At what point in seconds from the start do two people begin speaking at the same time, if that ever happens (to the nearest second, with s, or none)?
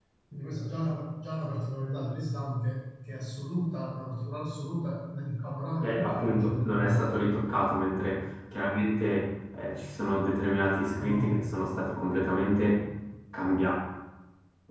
6 s